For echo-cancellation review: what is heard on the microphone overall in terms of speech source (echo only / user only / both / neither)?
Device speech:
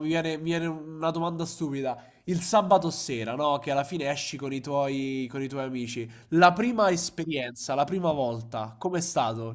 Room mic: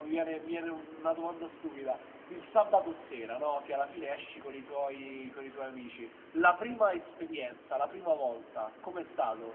echo only